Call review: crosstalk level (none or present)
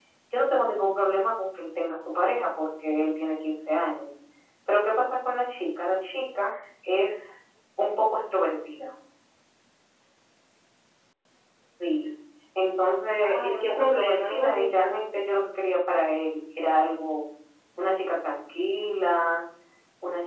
present